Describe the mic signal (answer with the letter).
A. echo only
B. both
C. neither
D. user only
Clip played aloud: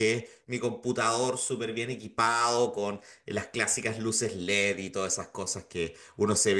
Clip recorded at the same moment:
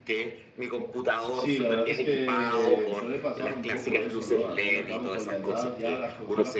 B